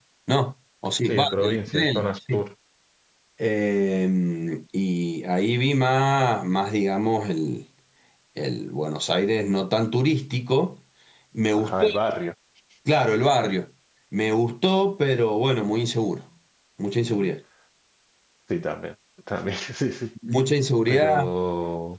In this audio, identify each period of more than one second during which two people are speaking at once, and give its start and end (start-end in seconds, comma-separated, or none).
1.1-2.4